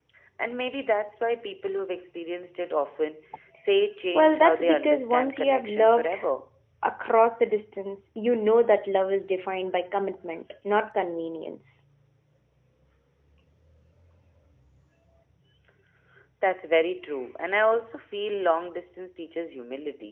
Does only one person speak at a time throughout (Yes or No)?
No